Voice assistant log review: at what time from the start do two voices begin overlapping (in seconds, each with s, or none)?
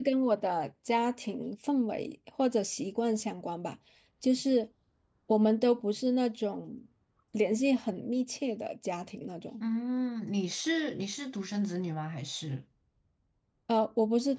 none